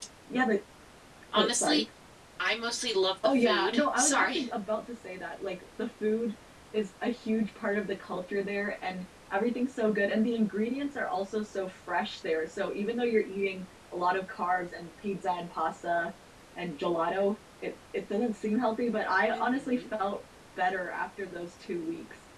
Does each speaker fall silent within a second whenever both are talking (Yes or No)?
No